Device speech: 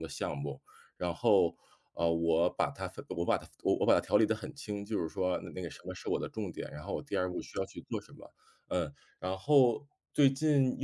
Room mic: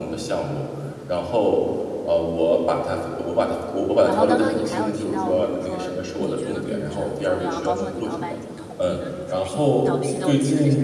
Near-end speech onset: 4.0 s

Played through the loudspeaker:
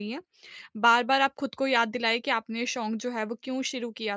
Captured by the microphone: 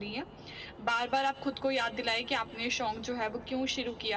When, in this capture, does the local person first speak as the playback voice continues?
none

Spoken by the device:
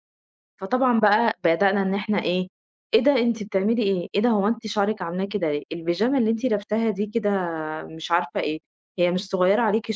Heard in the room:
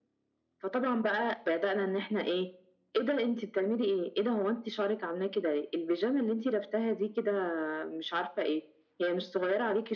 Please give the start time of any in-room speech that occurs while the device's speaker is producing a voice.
none

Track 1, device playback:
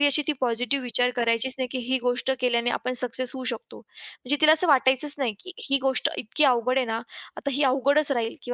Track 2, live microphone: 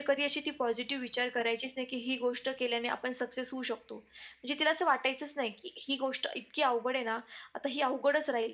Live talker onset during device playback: none

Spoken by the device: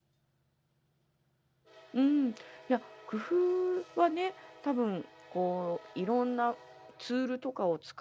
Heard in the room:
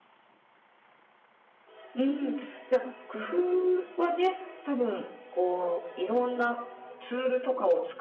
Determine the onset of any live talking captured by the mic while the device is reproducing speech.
none

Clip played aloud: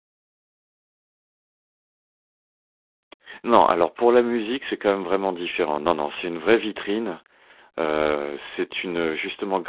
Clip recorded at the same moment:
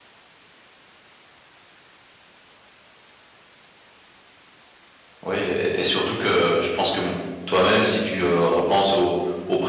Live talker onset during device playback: 5.2 s

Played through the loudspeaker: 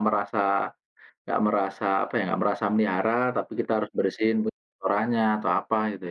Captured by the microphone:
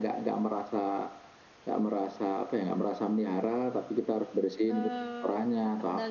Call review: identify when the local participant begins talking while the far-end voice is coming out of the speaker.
4.7 s

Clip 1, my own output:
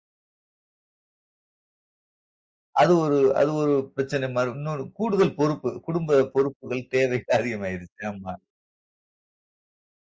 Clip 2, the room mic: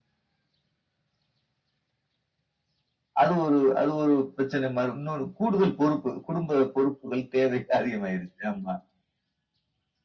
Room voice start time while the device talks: none

